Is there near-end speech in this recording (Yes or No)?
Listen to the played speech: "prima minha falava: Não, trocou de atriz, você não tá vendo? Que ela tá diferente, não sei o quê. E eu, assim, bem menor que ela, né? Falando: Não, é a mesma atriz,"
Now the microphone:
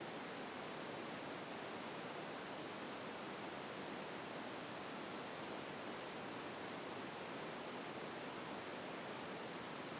No